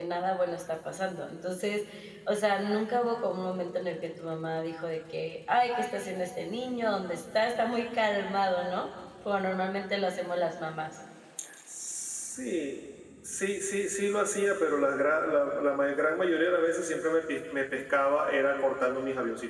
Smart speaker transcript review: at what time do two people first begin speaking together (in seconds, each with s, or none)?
none